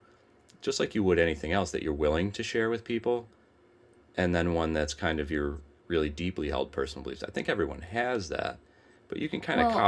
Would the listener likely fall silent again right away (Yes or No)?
Yes